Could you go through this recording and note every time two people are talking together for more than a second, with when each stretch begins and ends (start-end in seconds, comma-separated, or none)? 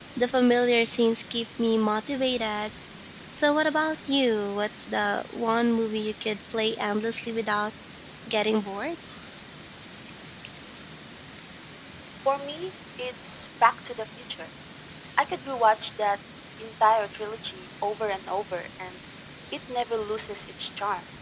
none